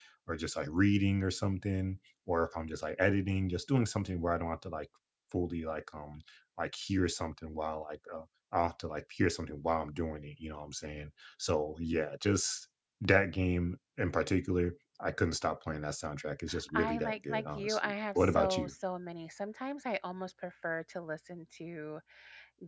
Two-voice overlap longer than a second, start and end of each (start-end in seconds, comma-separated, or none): 16.7-18.7